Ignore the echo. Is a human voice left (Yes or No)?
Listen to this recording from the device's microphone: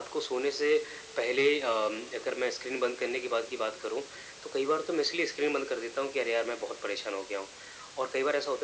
No